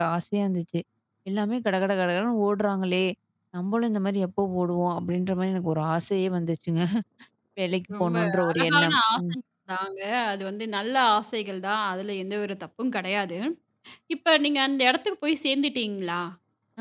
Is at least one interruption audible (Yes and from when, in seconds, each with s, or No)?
Yes, from 8.0 s